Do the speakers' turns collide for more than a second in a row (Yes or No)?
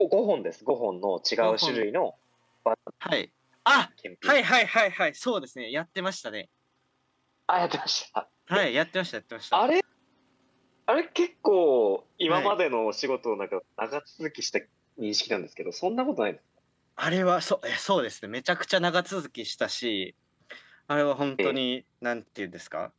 No